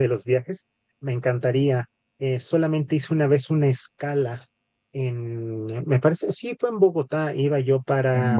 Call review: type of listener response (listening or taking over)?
listening